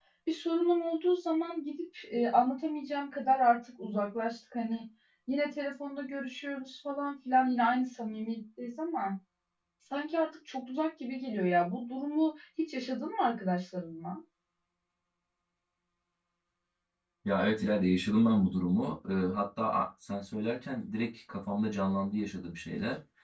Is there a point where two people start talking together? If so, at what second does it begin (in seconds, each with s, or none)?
none